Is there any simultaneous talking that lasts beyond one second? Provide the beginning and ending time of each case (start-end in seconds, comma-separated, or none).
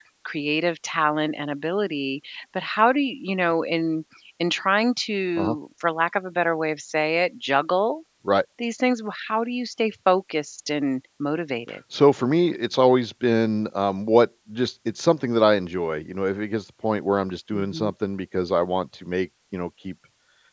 none